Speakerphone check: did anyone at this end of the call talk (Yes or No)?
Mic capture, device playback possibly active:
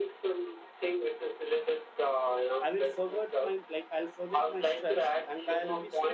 Yes